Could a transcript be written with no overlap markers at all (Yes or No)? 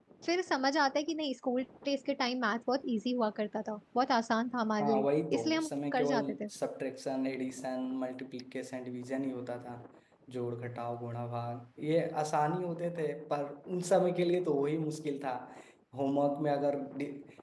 No